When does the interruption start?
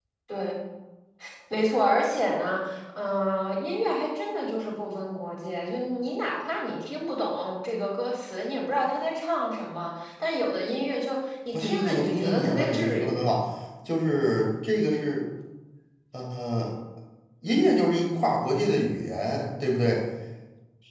11.5 s

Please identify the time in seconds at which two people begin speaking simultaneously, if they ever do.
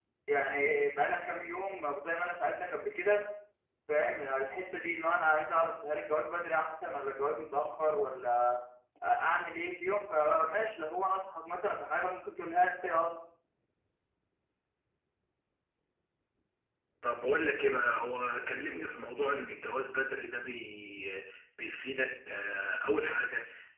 none

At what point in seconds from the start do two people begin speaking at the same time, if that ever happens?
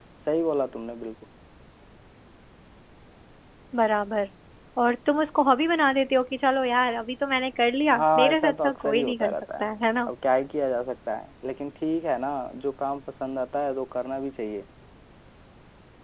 7.8 s

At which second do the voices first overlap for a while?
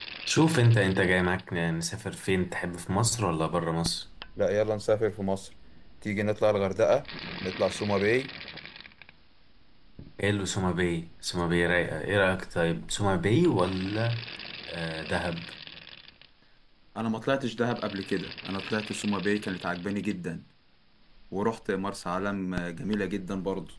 none

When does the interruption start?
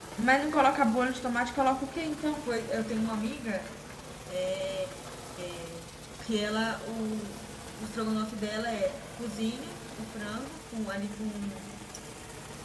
none

